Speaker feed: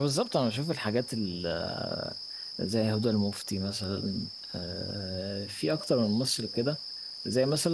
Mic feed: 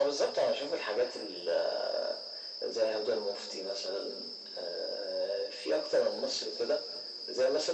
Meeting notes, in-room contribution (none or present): none